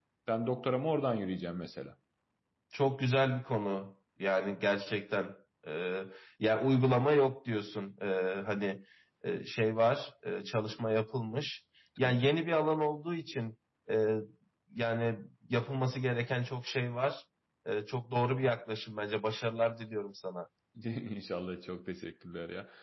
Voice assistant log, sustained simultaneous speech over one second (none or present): none